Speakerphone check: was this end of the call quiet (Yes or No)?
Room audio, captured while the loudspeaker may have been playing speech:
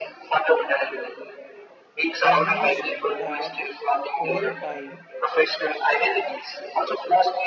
No